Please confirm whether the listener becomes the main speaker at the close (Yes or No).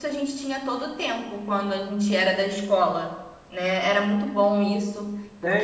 Yes